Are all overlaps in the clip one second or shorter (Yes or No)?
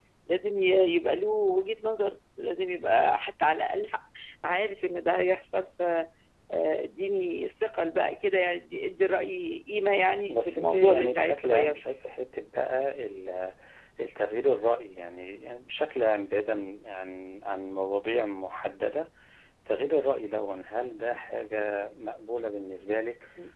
No